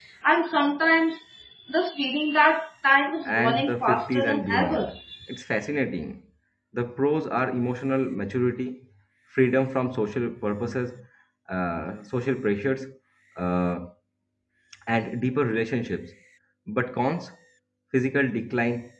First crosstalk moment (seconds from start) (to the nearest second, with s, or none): 3 s